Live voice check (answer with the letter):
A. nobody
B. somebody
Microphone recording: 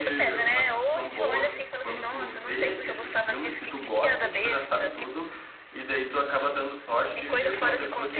B